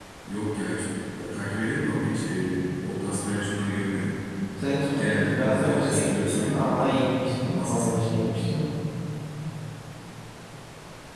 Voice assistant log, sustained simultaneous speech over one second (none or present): present